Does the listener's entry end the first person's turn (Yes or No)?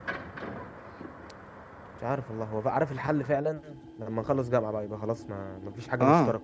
Yes